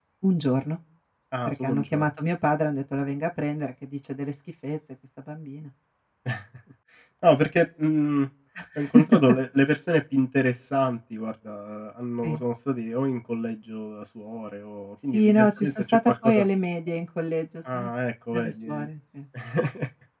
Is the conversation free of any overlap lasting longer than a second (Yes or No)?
No